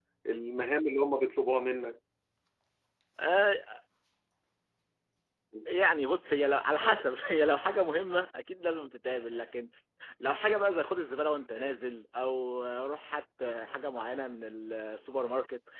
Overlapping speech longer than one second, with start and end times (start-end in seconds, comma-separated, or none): none